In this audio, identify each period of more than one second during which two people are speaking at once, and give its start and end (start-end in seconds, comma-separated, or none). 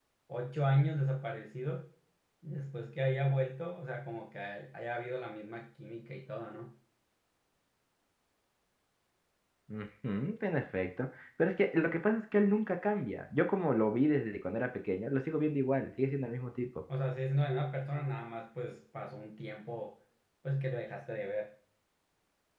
none